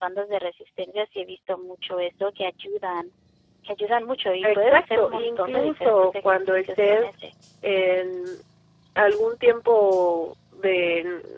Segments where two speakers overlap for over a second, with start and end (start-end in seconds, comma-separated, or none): 4.4-7.2